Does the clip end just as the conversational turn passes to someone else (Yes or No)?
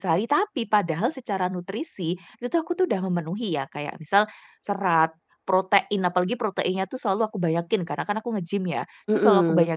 No